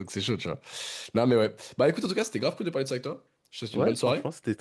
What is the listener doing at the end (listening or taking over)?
taking over